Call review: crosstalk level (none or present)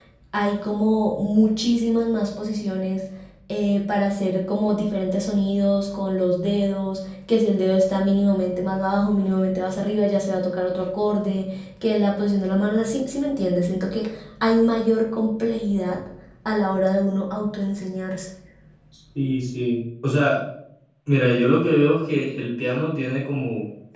none